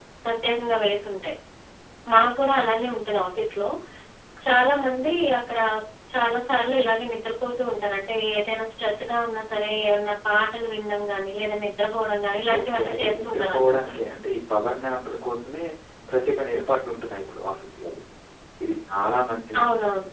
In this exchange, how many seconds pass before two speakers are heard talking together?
12.6 s

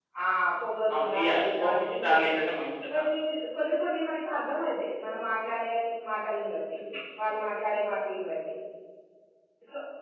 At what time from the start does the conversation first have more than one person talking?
0.9 s

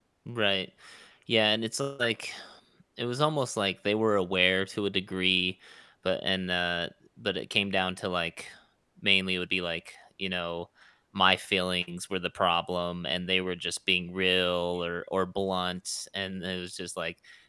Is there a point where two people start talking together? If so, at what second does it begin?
none

